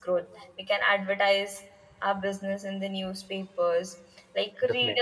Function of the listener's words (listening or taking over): listening